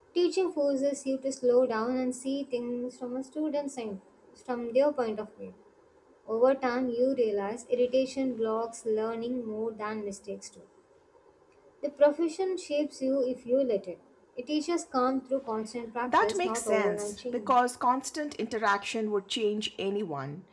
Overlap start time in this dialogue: 16.1 s

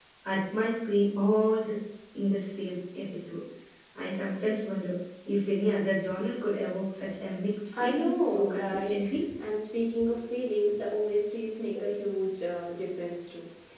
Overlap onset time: 7.7 s

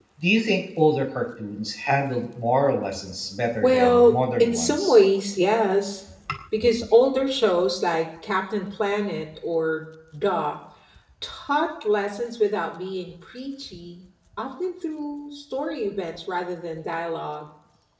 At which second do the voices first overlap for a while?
3.5 s

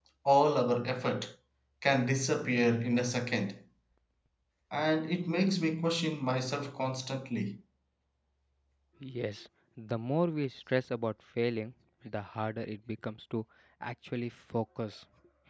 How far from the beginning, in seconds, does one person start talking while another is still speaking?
none

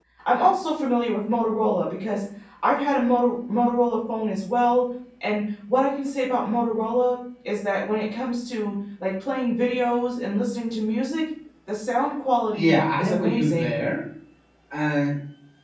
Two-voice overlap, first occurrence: 12.5 s

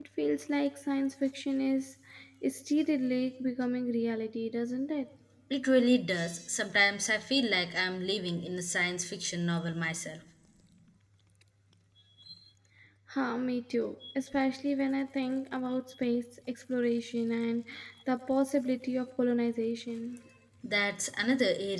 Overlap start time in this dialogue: none

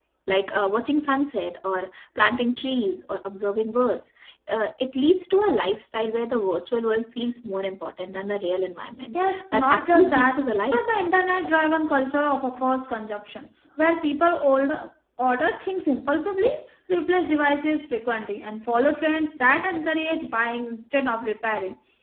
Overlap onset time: 9.1 s

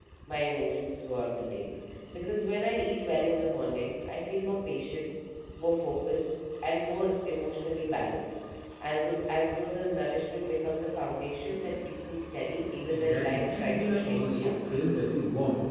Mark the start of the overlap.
12.9 s

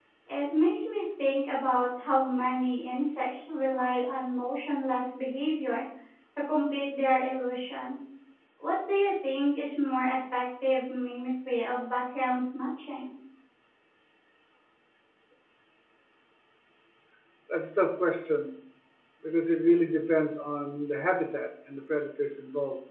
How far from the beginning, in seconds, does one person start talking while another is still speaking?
none

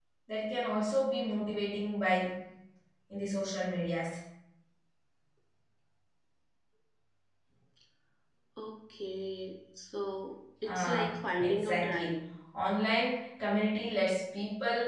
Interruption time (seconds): 10.6 s

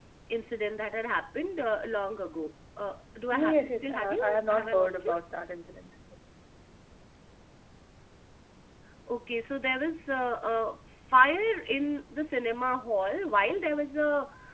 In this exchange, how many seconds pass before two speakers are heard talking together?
3.3 s

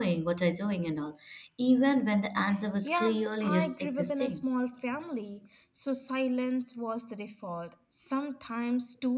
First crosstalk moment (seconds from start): 2.8 s

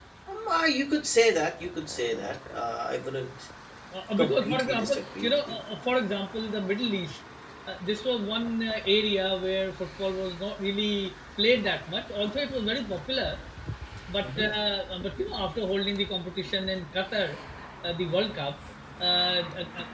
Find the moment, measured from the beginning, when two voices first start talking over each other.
4.2 s

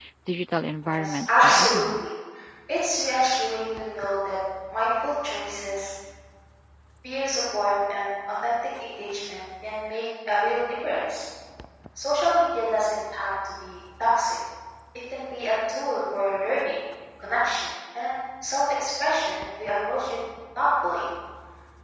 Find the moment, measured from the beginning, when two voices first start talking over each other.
0.9 s

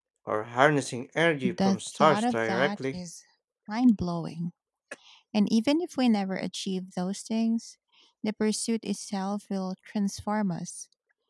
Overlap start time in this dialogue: 1.4 s

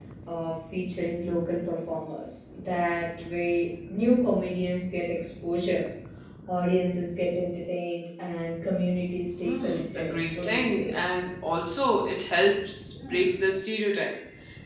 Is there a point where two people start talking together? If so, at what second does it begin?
9.3 s

